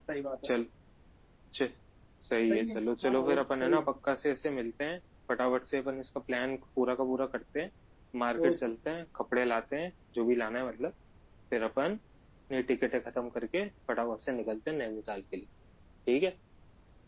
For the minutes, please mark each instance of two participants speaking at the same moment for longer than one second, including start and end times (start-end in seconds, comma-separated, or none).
2.5-3.9